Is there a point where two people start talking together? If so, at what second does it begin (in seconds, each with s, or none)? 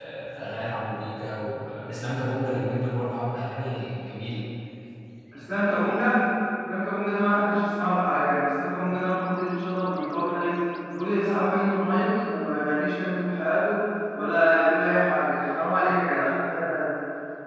none